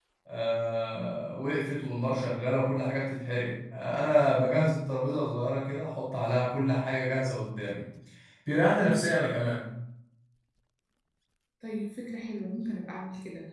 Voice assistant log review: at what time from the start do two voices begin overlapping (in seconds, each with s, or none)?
none